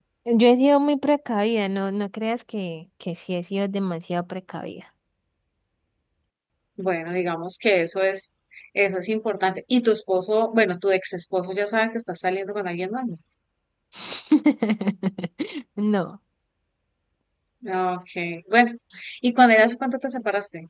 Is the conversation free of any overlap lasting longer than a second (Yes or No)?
Yes